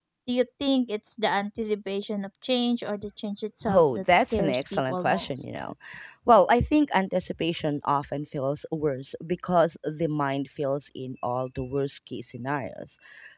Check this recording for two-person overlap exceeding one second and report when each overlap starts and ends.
3.7-5.5

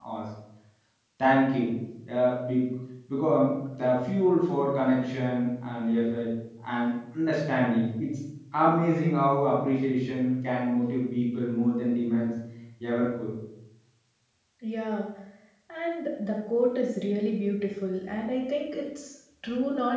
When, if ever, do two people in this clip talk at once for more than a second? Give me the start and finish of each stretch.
none

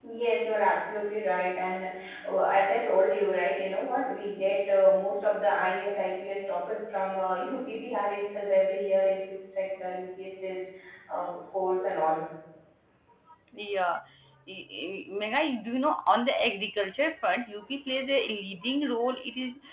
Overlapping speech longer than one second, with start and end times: none

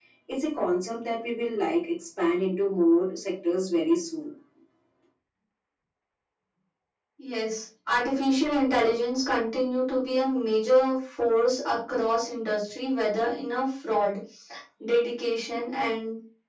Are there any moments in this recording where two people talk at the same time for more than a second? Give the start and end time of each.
none

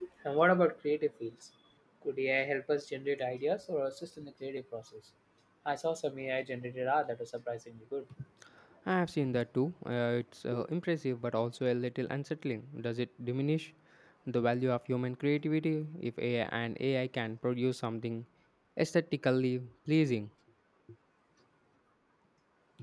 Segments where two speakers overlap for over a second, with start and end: none

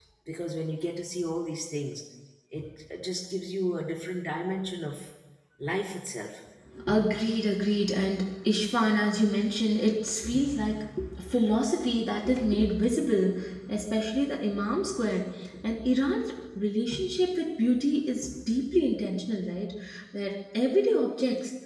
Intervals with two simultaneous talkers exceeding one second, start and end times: none

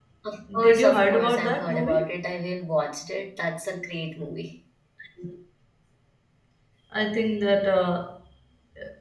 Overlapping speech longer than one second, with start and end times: 0.6-2.1

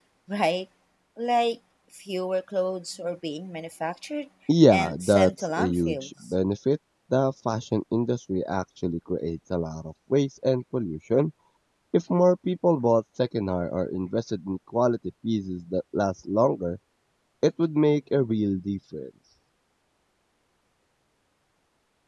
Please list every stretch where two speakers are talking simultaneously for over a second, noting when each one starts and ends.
4.7-6.1

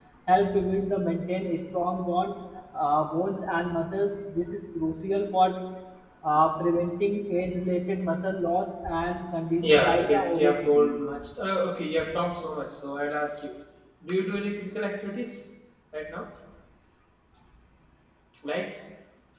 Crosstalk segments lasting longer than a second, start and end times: 9.6-10.9

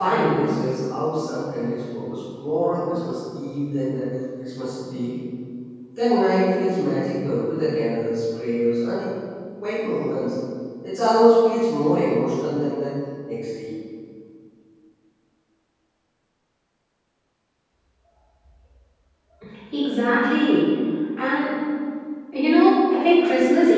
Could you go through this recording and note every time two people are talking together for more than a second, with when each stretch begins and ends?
none

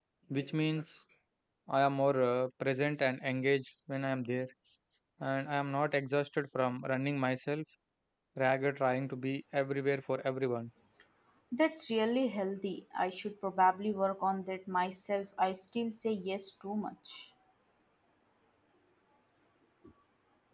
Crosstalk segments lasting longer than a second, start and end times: none

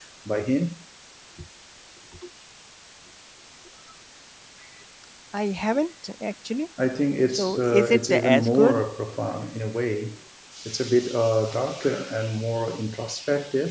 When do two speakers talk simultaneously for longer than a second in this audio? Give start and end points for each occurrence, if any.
7.3-8.8

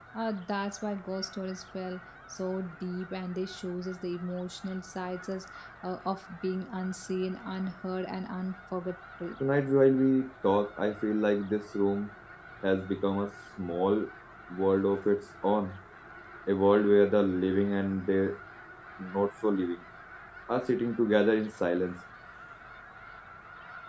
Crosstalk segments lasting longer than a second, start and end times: none

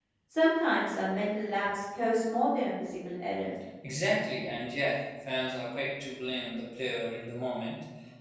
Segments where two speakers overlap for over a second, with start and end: none

